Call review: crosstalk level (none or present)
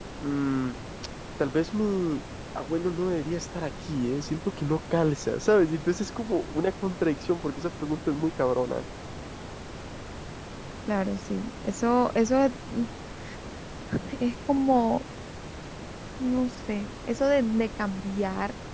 none